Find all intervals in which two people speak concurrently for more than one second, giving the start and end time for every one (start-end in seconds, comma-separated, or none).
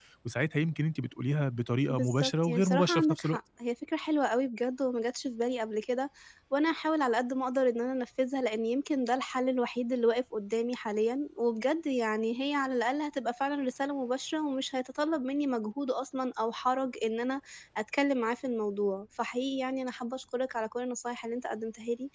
1.9-3.4